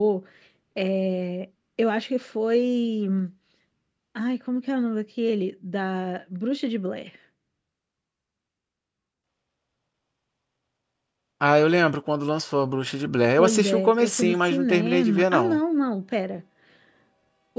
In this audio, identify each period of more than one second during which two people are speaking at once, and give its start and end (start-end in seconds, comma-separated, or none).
13.4-15.6